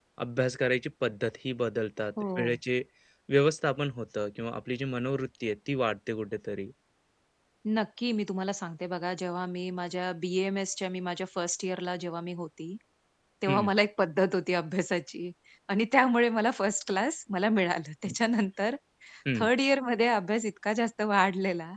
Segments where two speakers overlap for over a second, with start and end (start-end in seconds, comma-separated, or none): none